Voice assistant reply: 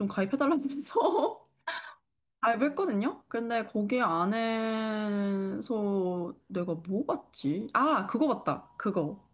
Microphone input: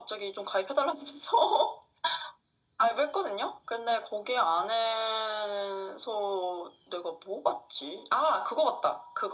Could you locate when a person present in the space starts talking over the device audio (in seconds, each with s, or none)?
none